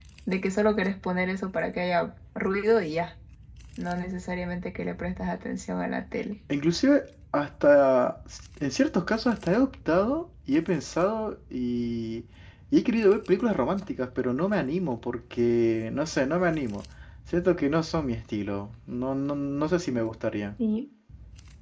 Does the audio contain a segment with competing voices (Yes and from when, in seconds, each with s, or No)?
No